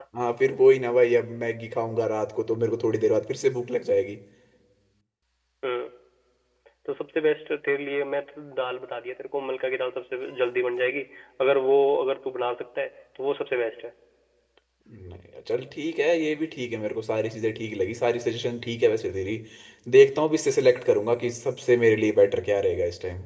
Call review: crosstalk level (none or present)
none